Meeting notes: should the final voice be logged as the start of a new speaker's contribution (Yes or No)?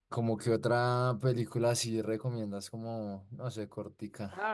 Yes